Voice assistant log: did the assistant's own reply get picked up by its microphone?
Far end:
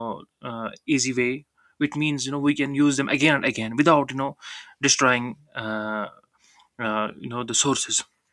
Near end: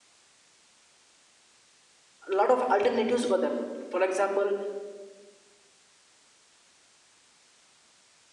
No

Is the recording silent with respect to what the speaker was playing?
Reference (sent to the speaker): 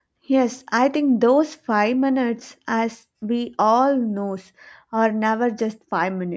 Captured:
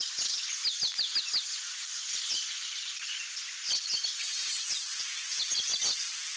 Yes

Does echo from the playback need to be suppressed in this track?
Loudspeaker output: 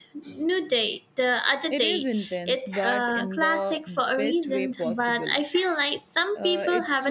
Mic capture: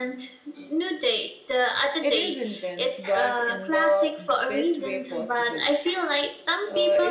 Yes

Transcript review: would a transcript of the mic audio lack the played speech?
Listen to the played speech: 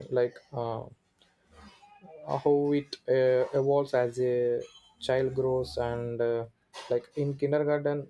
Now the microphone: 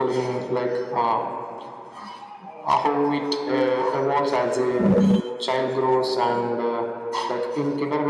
No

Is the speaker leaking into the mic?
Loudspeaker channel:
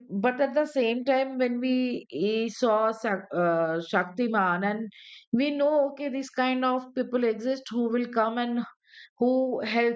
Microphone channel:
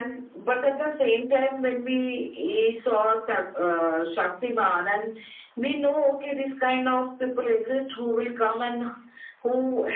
Yes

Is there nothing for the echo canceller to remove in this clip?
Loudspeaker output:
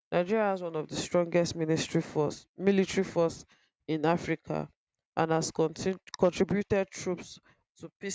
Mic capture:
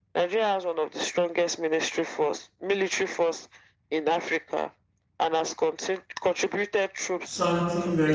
No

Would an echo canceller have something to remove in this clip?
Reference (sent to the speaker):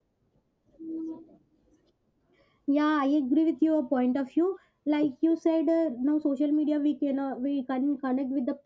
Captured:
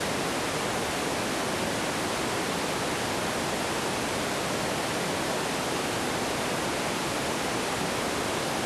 No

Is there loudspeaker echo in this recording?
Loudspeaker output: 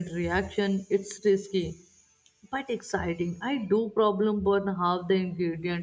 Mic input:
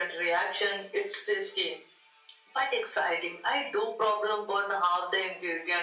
Yes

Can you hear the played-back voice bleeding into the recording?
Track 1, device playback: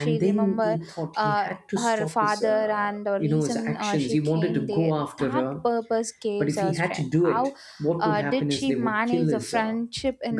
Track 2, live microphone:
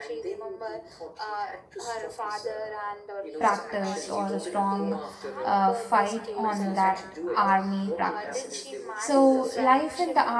Yes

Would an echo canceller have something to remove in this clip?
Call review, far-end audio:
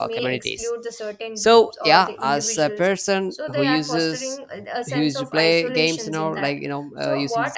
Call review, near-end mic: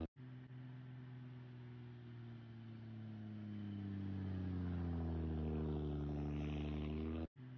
No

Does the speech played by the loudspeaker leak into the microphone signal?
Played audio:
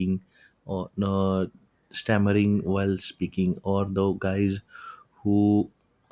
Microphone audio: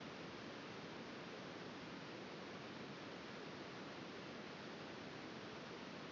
No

